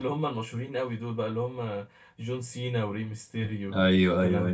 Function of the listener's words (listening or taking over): taking over